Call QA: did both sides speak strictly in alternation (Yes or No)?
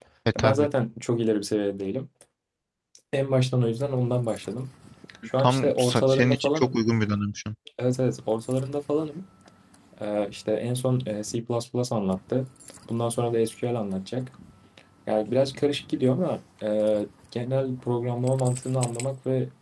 No